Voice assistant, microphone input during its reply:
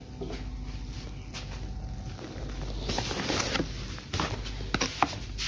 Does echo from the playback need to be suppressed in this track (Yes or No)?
No